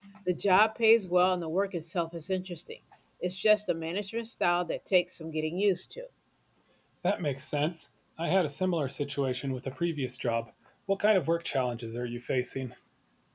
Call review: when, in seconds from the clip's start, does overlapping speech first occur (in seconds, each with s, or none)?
none